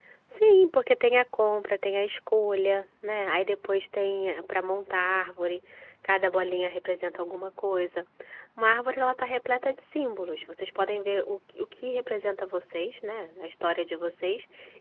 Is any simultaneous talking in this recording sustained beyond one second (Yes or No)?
No